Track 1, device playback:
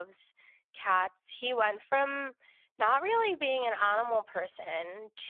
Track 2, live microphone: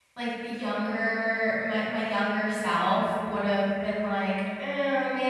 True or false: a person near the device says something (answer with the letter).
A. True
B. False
A